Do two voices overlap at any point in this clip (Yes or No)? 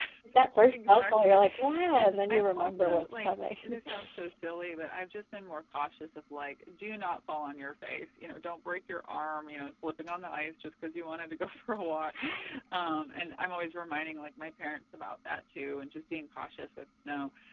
Yes